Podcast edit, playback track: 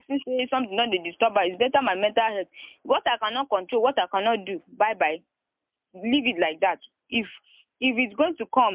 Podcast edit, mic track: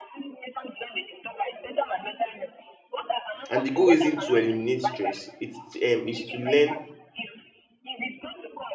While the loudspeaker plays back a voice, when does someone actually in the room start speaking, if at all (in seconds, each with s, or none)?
3.5 s